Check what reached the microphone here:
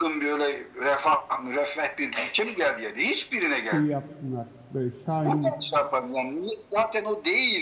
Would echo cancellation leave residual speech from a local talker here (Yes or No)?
Yes